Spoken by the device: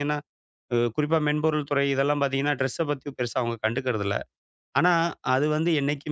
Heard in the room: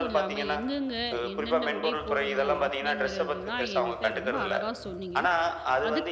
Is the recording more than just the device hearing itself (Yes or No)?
Yes